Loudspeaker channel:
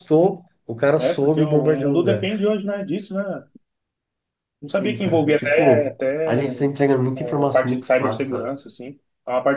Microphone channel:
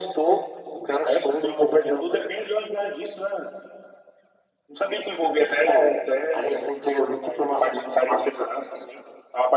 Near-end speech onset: none

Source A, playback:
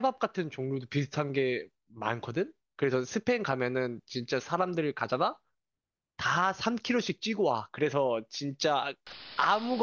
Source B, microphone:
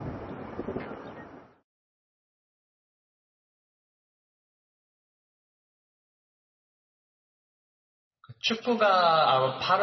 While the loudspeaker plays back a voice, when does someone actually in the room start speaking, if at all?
8 s

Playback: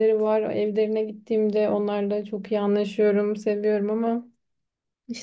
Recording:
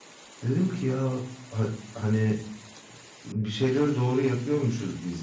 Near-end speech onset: 0 s

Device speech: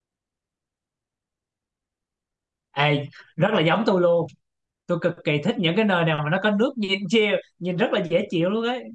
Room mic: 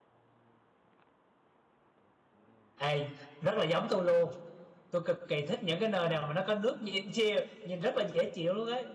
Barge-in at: none

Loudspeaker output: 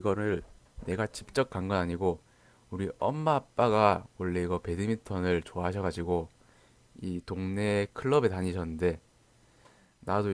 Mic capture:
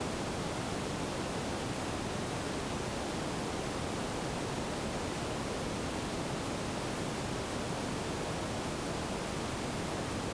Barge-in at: none

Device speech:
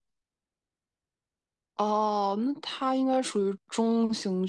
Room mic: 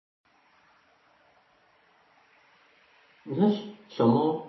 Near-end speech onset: 3 s

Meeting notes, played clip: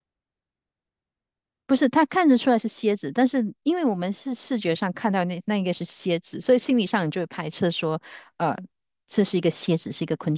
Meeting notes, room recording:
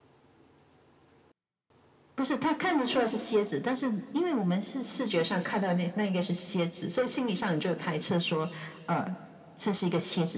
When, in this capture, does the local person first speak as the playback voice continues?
none

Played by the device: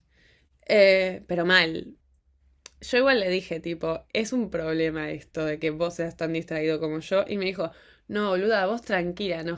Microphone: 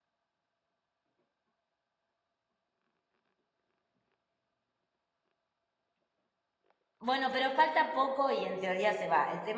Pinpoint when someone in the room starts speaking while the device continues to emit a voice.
7 s

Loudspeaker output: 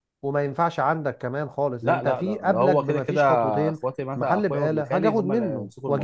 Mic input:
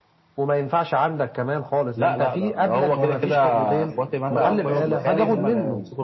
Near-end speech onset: 3 s

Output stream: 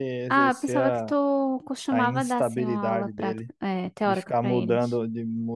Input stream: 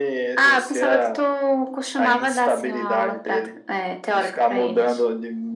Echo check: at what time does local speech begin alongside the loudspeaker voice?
none

